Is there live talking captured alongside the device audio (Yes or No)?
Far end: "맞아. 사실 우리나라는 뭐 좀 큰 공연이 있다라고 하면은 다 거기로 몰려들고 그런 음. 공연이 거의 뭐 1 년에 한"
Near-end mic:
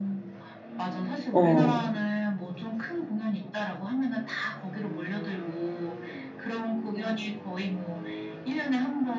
Yes